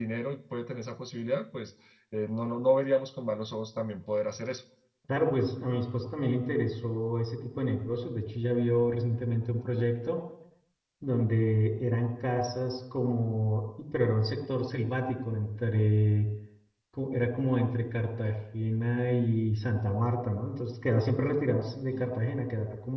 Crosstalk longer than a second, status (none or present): none